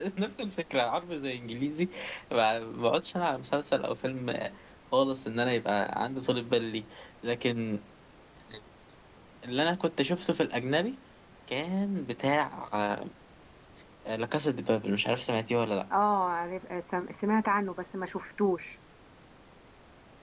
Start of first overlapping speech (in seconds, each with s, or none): none